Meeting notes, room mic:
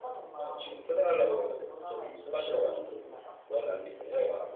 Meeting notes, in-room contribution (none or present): none